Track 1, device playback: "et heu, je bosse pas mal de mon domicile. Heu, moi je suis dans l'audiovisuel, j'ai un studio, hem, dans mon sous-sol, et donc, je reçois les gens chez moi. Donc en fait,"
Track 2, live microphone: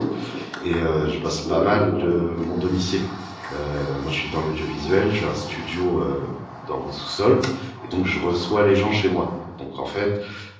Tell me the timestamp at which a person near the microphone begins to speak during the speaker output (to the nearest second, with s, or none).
none